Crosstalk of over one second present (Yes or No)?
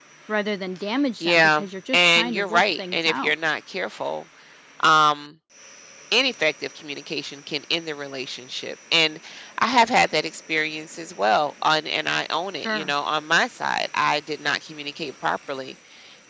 Yes